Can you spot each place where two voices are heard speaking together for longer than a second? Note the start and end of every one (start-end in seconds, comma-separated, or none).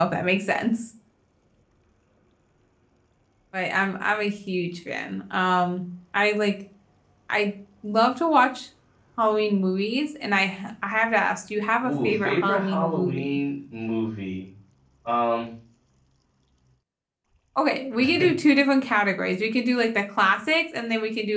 11.8-13.4